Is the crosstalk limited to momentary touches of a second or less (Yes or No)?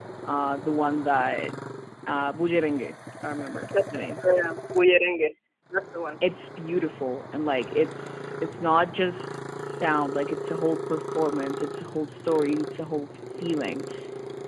Yes